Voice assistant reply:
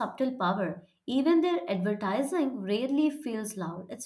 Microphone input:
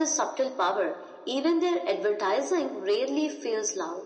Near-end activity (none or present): none